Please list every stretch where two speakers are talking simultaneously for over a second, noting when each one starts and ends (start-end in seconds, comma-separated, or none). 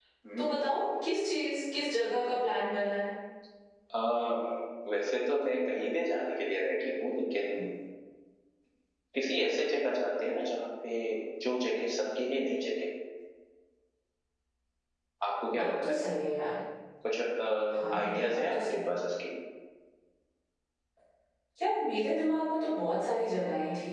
17.7-18.9